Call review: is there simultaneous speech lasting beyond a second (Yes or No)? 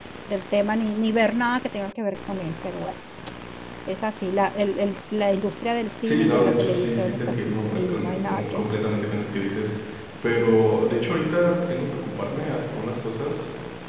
Yes